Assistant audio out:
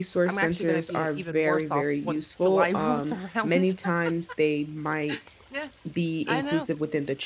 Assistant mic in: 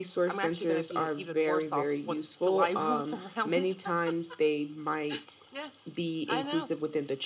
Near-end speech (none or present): none